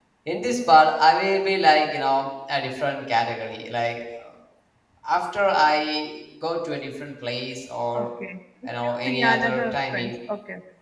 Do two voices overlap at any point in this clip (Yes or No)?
Yes